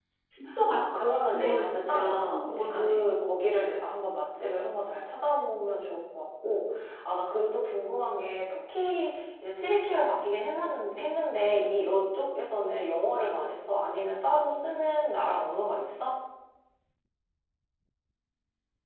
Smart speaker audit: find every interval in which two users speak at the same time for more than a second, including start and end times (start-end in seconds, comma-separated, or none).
0.7-3.0